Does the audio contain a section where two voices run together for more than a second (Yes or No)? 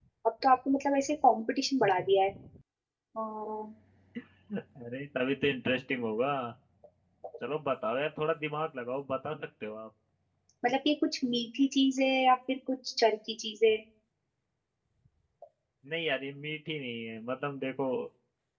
No